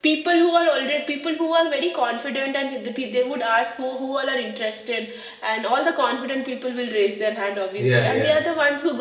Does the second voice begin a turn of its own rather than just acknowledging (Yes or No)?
No